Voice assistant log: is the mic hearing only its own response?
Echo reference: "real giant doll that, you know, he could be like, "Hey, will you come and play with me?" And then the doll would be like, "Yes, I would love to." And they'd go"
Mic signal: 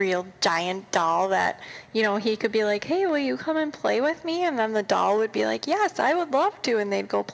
Yes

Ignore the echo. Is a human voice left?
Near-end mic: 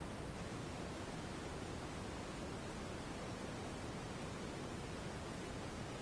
No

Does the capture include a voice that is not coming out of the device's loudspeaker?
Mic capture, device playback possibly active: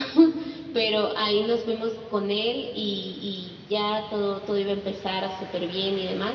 No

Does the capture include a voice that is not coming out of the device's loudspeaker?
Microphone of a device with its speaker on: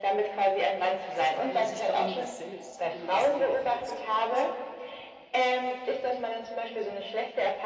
Yes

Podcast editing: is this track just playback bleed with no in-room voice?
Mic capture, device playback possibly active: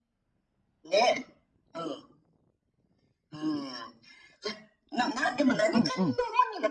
No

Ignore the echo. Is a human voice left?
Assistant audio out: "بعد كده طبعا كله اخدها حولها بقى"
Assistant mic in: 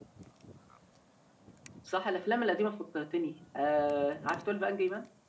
Yes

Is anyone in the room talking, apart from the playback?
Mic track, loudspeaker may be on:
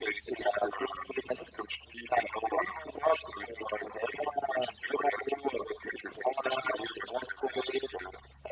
No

